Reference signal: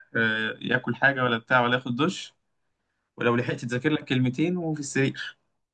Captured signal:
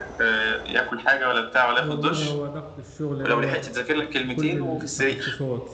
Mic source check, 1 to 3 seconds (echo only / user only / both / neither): both